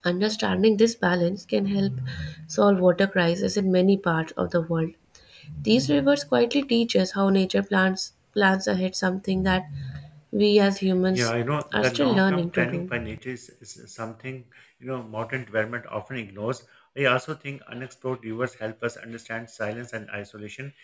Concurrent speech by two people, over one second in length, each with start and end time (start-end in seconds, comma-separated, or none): 11.7-12.9